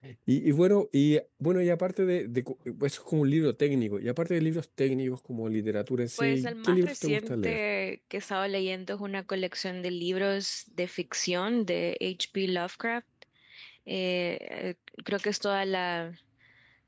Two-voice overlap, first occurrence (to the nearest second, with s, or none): 6 s